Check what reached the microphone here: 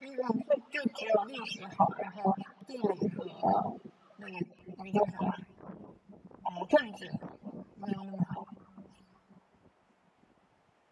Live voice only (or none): none